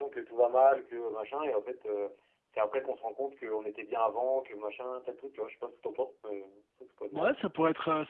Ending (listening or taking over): taking over